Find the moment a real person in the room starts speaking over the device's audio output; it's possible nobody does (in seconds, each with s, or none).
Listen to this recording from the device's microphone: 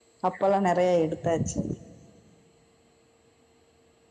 0.3 s